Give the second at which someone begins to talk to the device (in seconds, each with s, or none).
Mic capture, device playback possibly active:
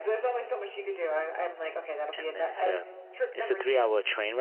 2.1 s